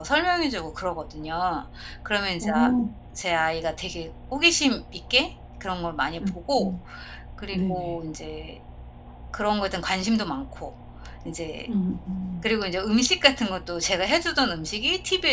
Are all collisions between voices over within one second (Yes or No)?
Yes